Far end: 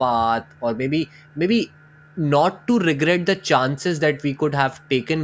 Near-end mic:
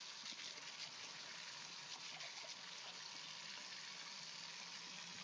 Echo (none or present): none